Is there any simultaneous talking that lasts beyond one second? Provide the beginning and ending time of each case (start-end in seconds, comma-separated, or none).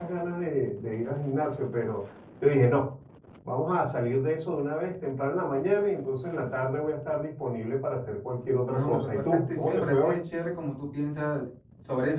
8.7-10.2